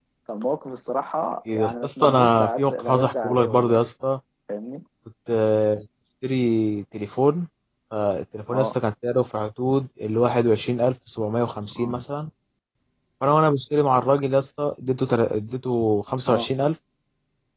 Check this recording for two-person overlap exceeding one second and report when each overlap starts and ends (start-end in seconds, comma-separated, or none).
1.5-3.8